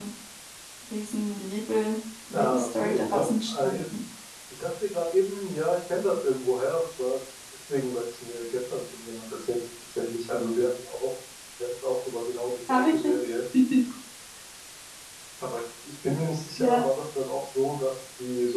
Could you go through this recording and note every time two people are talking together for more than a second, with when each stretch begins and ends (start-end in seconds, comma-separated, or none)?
2.3-3.8